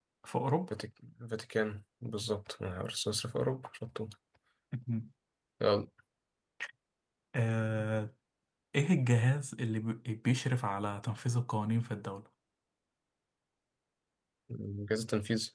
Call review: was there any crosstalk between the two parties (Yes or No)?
No